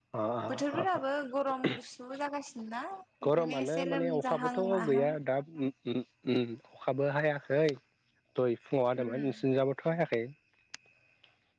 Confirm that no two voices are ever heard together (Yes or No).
No